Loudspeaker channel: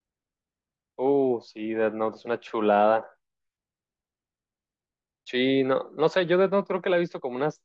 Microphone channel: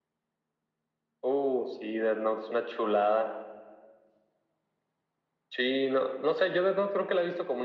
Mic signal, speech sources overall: echo only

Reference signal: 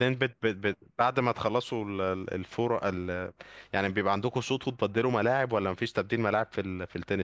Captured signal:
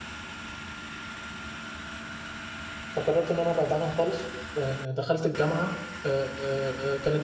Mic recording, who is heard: user only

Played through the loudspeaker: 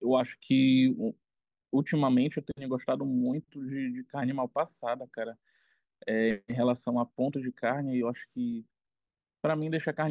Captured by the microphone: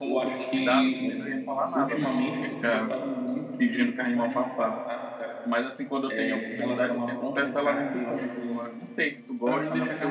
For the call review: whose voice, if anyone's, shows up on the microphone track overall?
both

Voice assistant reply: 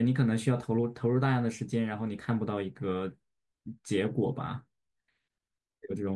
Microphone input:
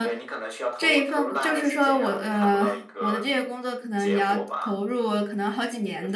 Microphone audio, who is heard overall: both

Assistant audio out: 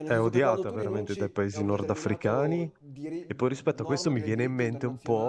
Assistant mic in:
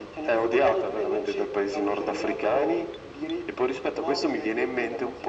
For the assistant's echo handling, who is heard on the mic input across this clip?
echo only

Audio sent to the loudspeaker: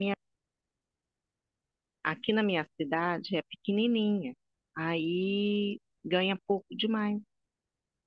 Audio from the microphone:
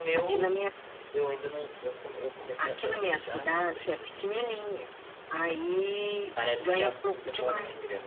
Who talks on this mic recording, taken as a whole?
both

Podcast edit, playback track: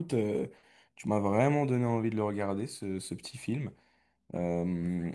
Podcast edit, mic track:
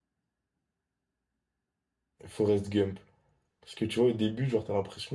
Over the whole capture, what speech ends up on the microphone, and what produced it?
user only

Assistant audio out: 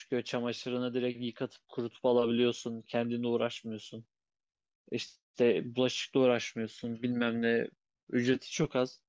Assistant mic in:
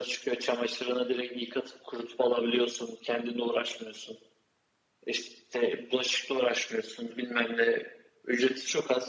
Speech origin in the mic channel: echo only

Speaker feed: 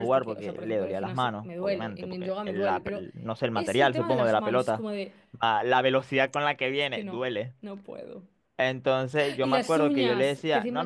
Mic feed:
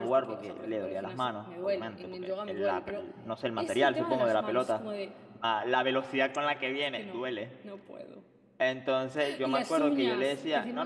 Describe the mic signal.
echo only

